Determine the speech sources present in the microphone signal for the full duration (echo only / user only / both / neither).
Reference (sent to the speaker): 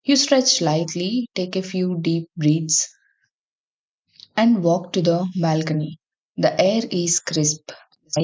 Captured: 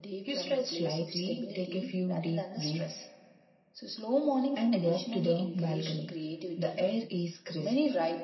both